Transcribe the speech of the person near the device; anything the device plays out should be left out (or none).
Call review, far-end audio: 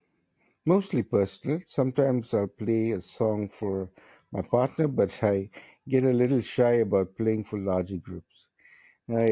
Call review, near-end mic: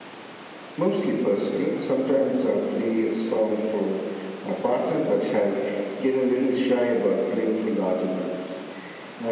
none